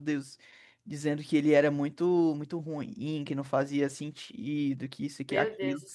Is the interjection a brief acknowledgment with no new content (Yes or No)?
No